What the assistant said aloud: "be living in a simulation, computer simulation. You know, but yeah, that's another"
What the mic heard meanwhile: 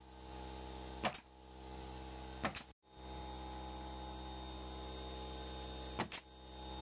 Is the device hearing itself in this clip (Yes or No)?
No